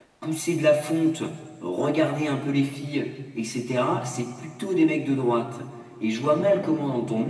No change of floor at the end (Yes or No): Yes